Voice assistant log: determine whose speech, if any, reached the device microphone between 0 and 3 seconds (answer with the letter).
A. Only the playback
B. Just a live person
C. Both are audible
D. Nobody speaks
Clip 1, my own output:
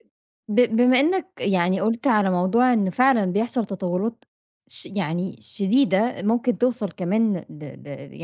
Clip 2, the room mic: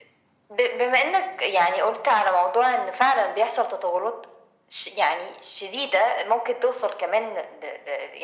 A